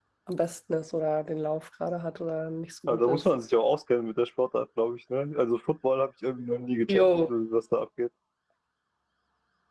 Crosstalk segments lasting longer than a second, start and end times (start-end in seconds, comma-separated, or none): none